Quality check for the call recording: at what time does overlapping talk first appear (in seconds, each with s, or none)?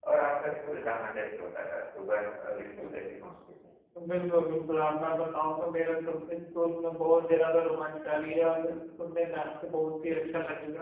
none